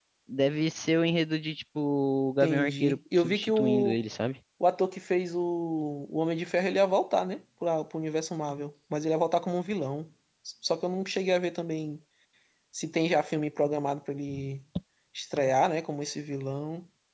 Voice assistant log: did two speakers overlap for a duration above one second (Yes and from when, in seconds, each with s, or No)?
Yes, from 2.4 s